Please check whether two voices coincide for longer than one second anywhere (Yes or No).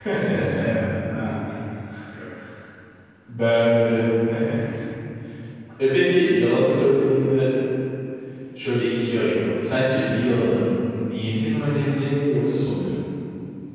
No